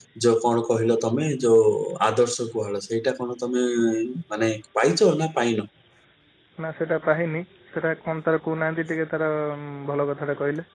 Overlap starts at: none

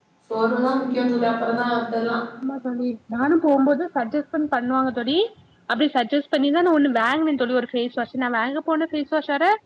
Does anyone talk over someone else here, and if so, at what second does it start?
none

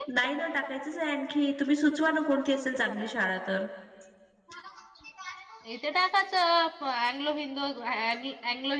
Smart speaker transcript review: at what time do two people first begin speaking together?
none

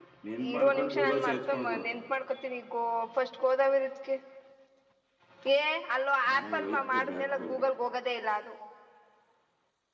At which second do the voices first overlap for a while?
0.5 s

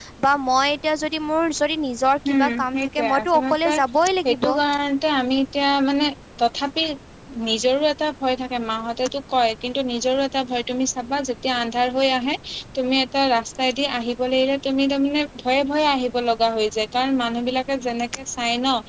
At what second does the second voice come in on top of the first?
2.3 s

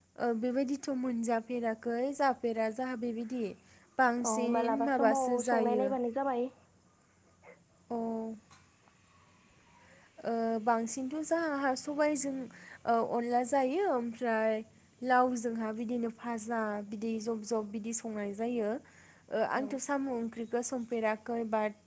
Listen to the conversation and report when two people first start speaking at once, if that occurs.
4.3 s

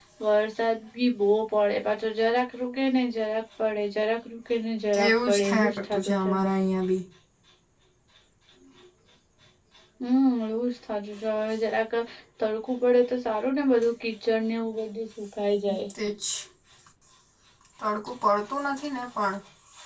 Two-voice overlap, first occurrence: 4.9 s

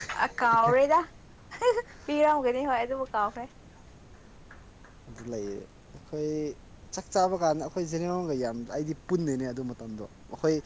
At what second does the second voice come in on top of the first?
none

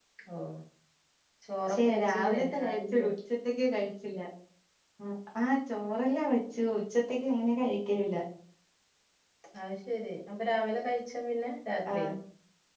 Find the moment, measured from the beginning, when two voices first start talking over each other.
1.7 s

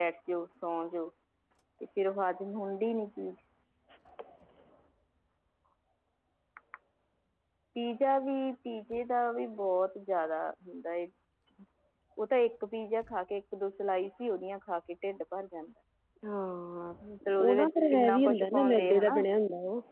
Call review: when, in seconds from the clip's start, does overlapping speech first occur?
17.4 s

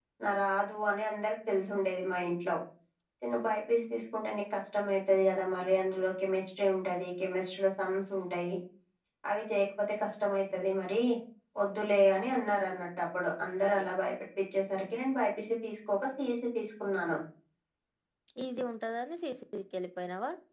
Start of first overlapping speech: none

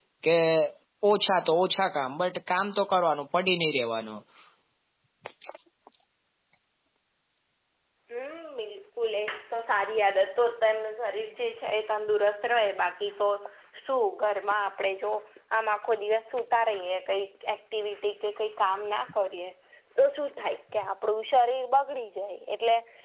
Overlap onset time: none

